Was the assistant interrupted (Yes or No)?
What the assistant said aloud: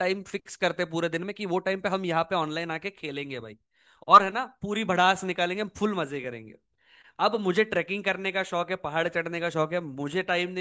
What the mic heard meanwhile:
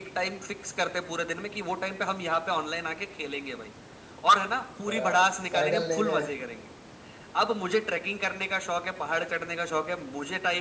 Yes